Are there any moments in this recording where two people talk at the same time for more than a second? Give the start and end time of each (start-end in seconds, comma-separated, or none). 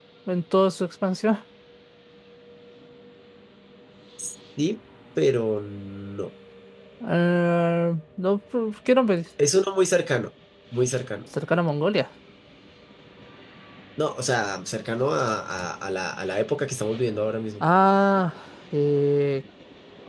none